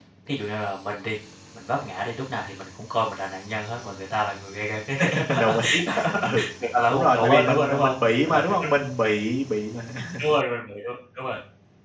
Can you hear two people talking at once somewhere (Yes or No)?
Yes